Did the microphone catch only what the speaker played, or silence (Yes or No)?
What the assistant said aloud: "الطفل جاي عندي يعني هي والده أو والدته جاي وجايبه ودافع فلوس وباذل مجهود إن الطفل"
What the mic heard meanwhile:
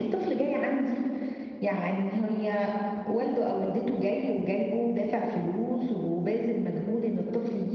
Yes